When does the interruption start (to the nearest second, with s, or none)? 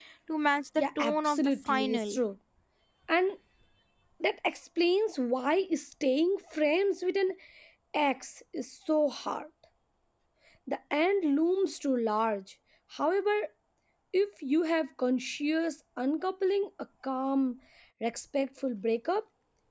1 s